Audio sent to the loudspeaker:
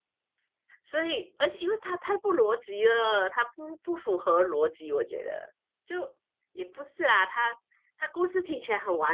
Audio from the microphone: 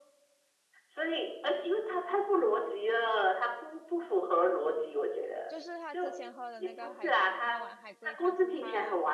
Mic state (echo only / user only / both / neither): both